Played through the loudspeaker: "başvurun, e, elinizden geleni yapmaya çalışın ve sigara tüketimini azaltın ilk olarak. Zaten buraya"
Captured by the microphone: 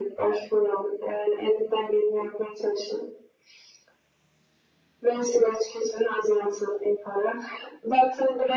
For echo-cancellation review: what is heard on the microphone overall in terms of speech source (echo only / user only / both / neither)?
echo only